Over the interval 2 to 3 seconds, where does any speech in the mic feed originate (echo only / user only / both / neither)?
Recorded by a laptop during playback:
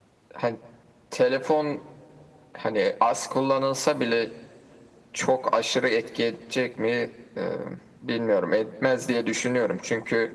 echo only